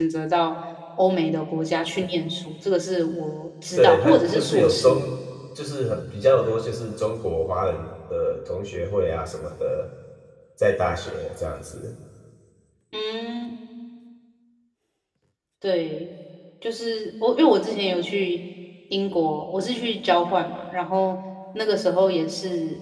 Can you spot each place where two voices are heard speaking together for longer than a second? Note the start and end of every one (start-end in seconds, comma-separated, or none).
3.8-5.0